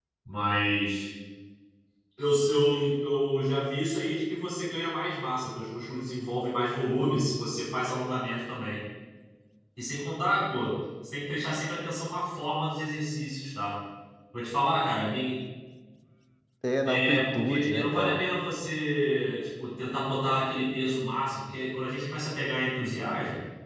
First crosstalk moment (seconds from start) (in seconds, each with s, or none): 16.9 s